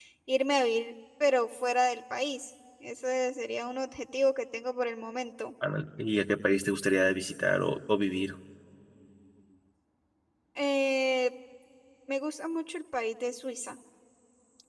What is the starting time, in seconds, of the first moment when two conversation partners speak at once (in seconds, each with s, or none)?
none